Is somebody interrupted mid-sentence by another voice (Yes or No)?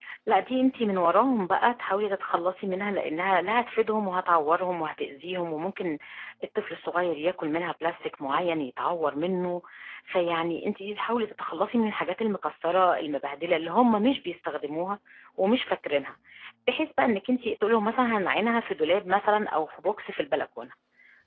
No